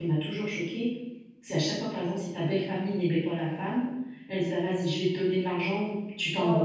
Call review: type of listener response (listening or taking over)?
listening